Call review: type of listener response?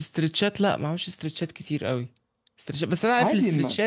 listening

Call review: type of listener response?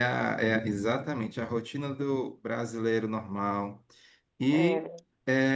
listening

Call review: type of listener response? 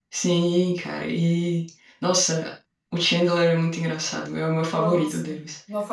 taking over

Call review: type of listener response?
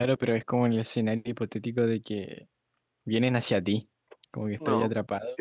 taking over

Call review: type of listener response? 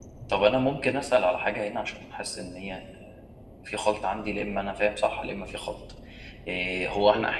listening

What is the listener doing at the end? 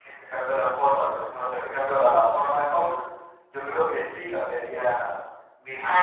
taking over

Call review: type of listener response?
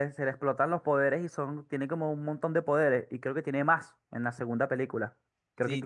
taking over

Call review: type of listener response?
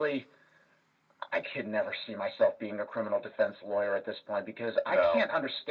listening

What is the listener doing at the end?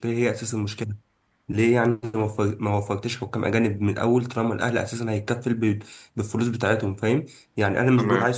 listening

